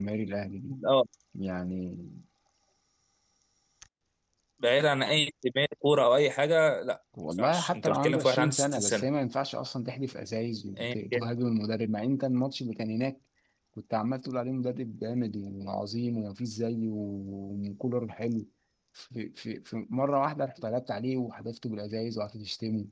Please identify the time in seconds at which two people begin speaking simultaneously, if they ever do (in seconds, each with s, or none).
7.3 s